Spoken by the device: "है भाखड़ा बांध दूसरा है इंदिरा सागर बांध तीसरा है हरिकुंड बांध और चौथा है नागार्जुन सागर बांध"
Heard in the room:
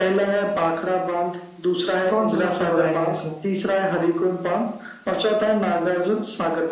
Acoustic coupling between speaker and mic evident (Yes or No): Yes